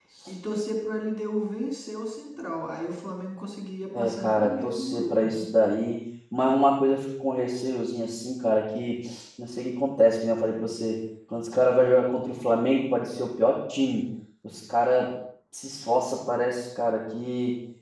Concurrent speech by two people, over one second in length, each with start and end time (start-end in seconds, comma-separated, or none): 3.9-5.5